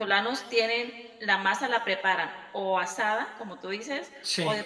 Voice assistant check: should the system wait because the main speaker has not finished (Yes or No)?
Yes